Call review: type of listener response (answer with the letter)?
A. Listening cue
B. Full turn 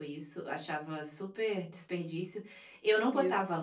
A